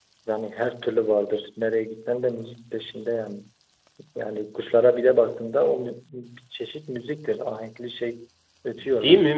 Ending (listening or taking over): taking over